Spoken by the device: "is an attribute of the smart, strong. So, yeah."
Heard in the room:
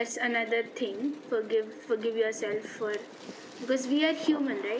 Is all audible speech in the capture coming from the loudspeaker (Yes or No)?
No